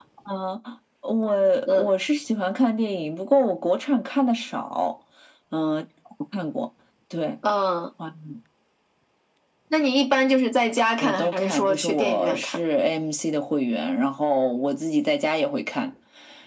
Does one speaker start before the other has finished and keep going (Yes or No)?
Yes